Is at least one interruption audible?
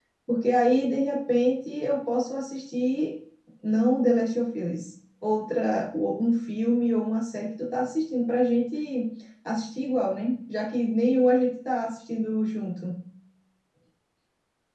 No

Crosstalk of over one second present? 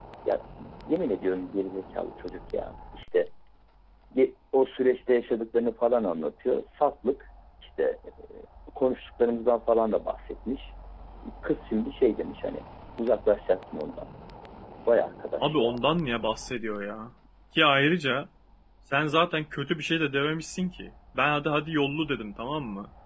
No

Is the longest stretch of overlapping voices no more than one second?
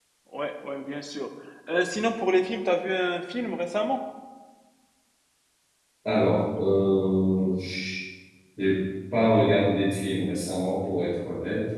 Yes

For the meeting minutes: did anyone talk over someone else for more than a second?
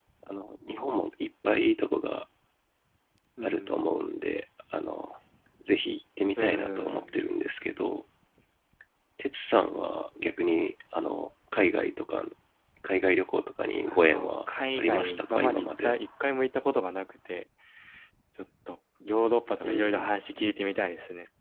Yes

